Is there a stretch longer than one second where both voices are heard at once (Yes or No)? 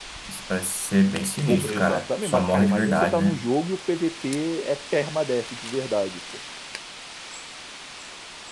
Yes